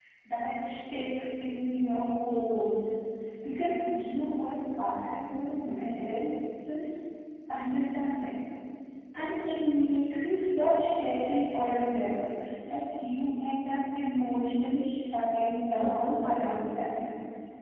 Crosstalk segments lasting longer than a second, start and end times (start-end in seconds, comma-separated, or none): 15.8-17.0